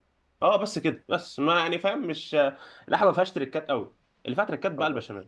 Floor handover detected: No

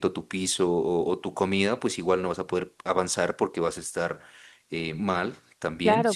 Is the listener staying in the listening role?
No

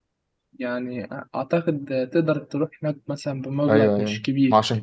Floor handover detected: Yes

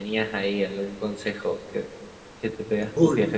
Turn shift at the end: Yes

